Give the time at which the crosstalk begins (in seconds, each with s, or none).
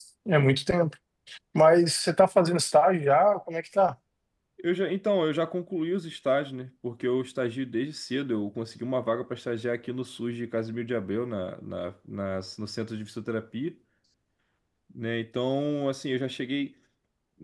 none